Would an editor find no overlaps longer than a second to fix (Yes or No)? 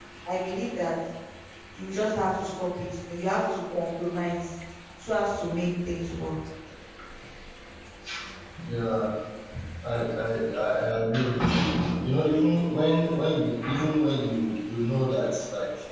Yes